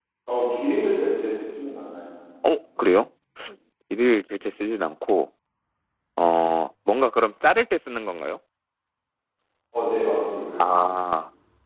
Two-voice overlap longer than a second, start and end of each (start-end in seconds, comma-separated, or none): none